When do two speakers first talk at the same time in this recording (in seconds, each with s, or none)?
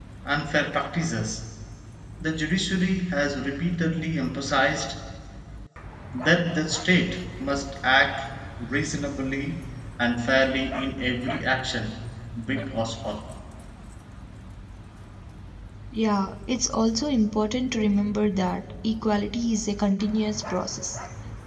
none